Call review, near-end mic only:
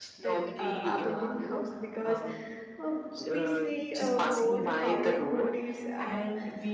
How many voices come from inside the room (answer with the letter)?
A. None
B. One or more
B